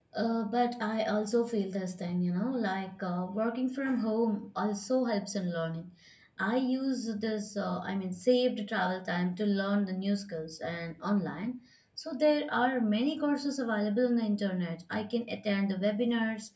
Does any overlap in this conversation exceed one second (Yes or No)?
No